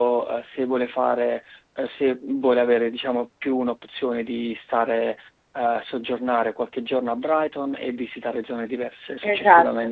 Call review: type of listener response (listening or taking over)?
taking over